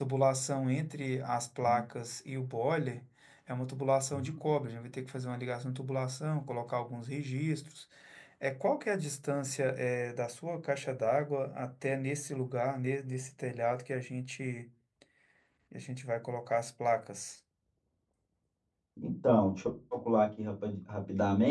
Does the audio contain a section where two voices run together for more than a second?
No

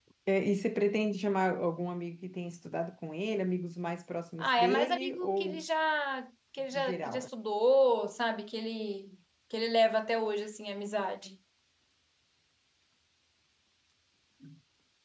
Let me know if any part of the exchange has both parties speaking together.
Yes, from 4.4 s

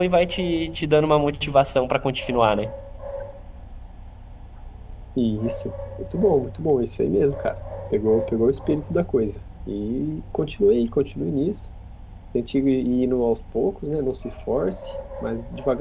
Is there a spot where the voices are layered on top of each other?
No

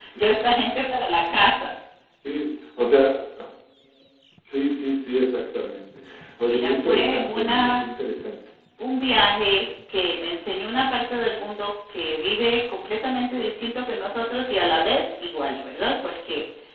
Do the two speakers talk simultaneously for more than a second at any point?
Yes, from 6.5 s

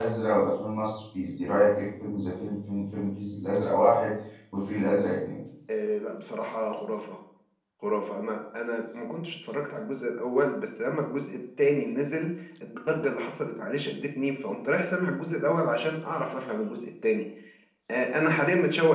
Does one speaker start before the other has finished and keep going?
No

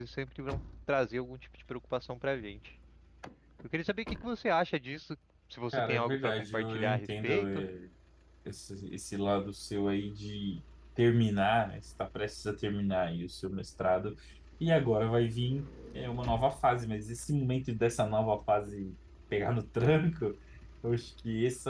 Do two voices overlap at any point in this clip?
Yes, from 5.7 s

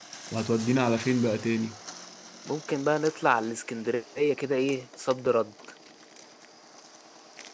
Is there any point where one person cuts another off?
No

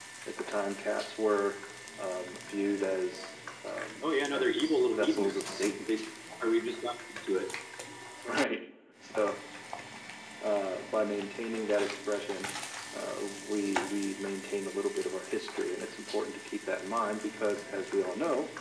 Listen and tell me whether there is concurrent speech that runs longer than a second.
Yes, from 4.3 s

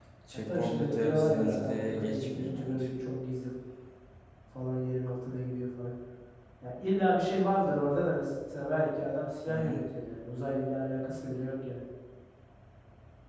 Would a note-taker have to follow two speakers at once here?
Yes, from 0.6 s

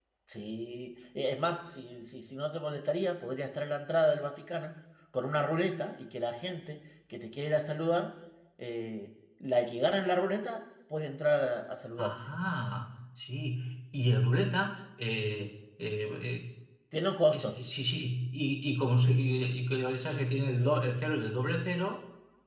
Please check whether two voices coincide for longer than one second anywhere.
No

